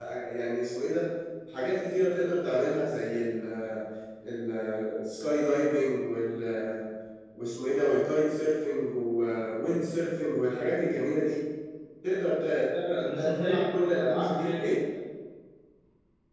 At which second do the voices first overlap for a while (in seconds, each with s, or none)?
13.0 s